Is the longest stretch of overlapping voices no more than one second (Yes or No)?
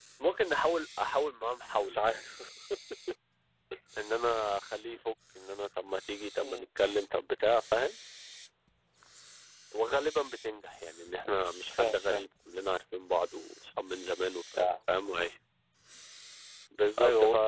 Yes